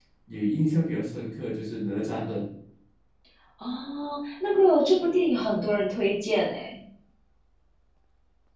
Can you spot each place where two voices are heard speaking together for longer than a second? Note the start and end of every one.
none

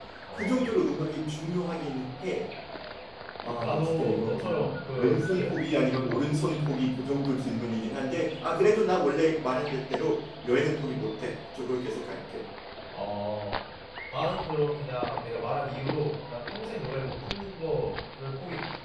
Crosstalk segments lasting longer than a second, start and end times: 3.6-5.5

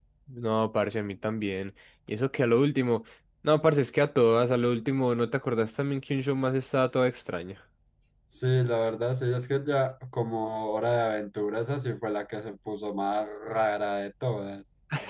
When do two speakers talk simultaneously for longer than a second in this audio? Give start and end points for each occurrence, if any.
none

